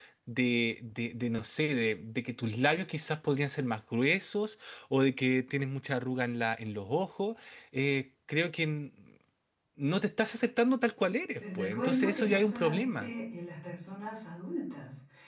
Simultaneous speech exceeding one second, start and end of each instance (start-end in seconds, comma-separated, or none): 11.4-13.1